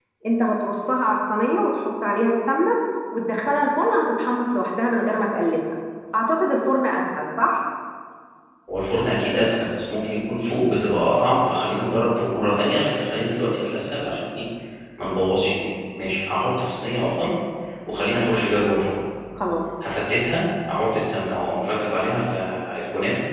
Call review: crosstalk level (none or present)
none